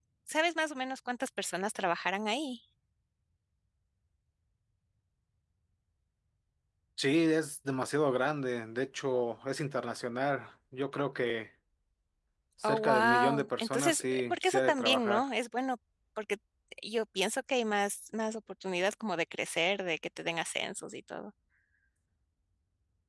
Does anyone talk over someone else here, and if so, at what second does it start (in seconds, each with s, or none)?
12.6 s